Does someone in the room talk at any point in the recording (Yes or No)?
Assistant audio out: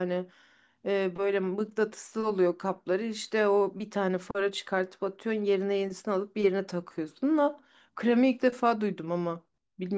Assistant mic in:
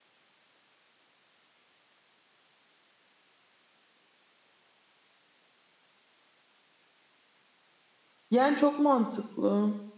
Yes